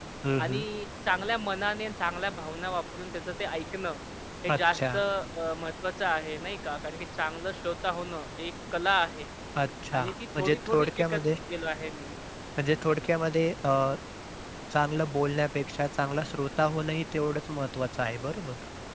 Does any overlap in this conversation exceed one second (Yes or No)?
Yes